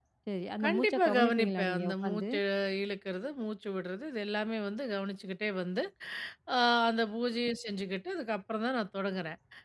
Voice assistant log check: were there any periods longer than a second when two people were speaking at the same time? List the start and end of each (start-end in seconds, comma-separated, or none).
0.6-2.2